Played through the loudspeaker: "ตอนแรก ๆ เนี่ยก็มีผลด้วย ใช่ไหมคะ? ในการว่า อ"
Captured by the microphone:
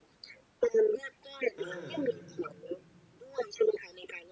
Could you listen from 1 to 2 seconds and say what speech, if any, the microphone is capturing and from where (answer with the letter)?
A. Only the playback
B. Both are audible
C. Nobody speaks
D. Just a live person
B